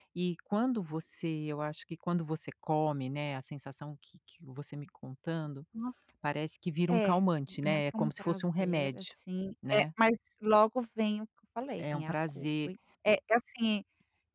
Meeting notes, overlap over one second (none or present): present